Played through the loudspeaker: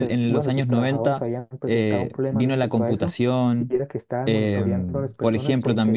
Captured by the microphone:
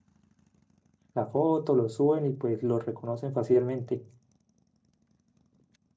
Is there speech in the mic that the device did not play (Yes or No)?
Yes